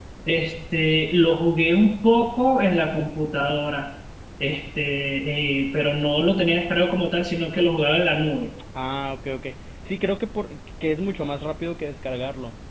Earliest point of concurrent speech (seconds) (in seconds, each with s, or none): none